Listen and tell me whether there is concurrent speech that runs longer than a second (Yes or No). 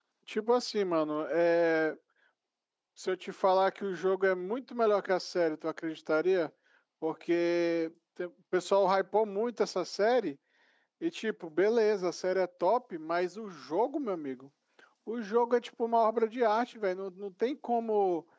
No